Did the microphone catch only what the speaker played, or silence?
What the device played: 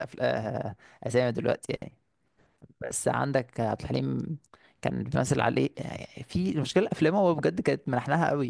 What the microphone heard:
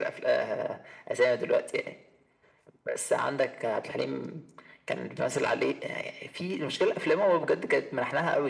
Yes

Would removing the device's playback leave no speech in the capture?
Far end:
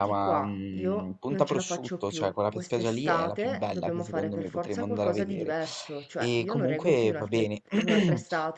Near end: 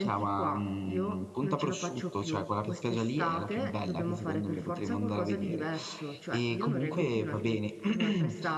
Yes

